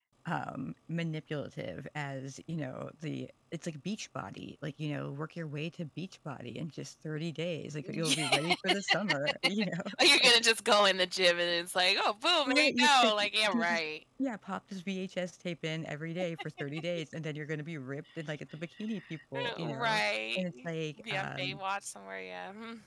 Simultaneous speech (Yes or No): Yes